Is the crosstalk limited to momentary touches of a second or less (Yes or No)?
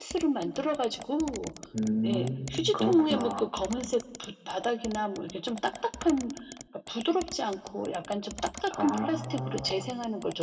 No